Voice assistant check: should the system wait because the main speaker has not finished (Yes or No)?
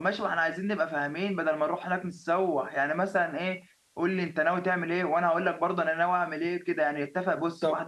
Yes